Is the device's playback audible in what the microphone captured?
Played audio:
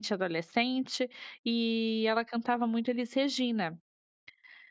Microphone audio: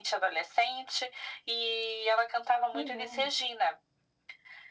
Yes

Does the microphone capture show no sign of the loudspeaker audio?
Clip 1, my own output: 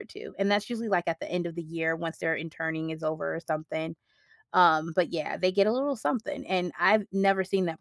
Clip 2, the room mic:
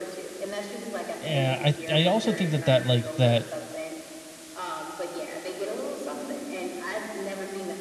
No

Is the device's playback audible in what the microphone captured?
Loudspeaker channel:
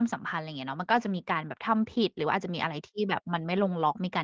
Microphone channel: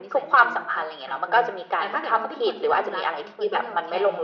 Yes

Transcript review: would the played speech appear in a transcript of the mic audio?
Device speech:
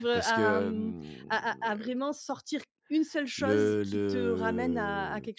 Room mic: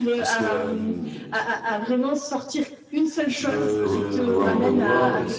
Yes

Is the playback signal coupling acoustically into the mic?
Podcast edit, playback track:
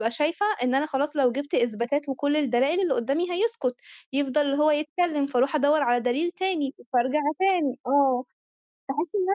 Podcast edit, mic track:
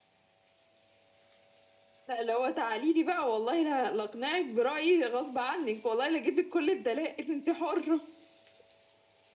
No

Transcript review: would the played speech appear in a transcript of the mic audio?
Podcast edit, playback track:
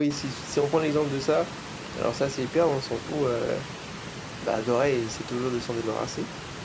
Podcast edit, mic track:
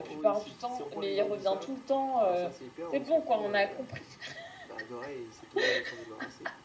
Yes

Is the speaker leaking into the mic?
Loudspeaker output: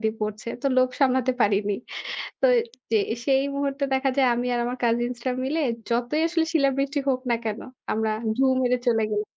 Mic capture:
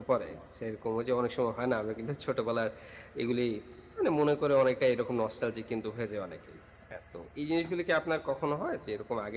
No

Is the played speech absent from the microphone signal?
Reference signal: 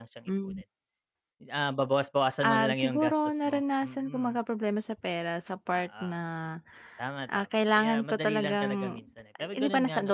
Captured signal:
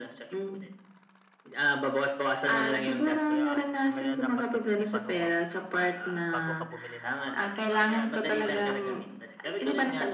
No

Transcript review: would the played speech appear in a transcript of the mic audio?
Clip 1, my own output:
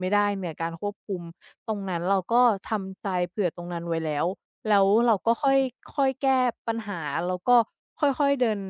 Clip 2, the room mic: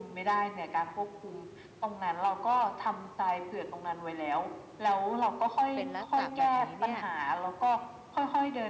Yes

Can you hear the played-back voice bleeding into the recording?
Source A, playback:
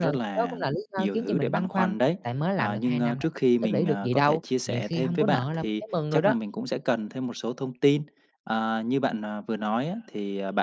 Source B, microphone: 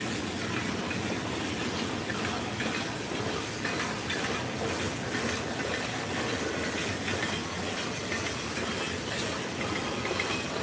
No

